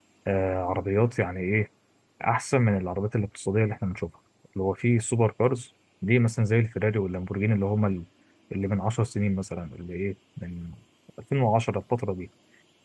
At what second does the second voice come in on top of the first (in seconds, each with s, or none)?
none